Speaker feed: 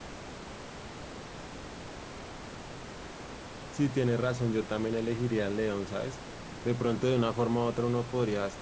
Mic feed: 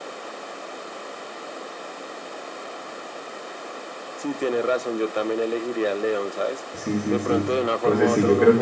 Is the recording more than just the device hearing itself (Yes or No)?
Yes